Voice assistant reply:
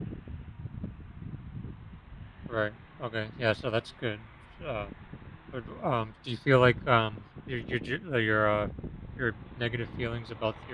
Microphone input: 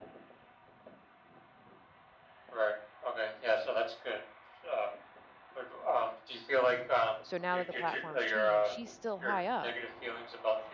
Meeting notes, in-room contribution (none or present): present